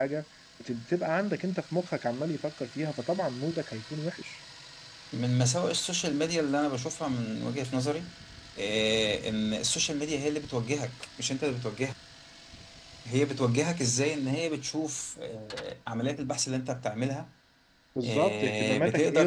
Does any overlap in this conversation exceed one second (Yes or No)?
Yes